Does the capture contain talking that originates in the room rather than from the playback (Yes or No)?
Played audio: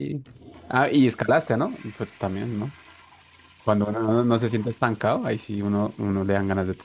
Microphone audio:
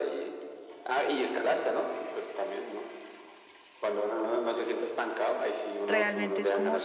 Yes